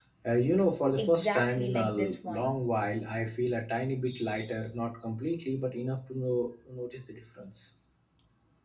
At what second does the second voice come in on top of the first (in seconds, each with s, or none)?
1.0 s